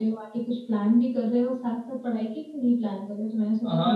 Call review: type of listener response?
taking over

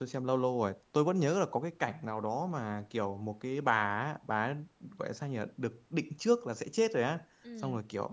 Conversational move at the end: listening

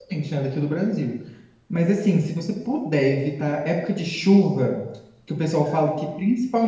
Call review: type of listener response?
listening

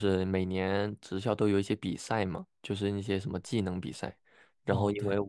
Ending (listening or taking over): listening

